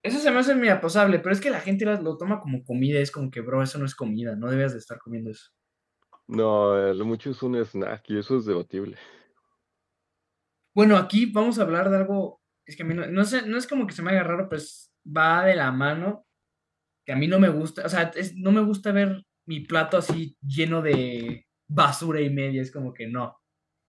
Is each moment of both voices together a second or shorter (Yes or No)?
Yes